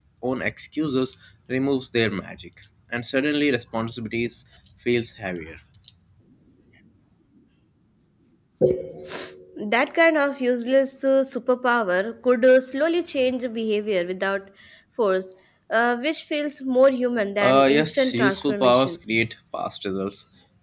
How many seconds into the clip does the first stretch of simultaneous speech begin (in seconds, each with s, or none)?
17.4 s